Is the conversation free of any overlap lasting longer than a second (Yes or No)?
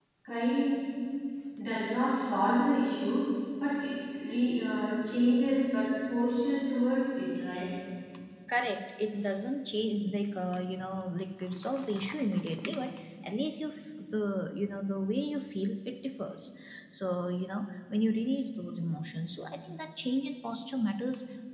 Yes